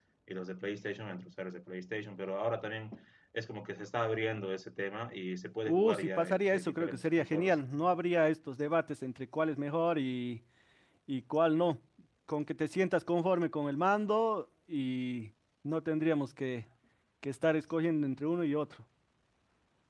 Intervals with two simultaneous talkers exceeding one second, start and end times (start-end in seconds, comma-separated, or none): 5.7-7.6